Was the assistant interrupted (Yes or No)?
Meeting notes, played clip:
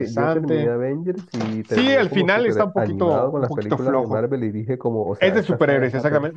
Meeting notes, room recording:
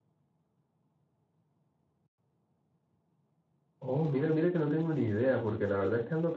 Yes